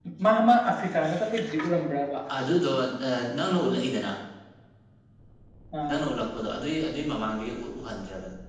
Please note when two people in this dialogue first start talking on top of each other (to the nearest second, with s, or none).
none